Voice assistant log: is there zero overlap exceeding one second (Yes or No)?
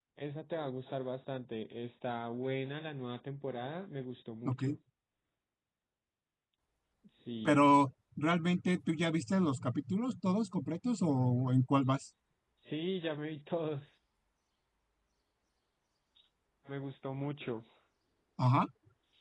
Yes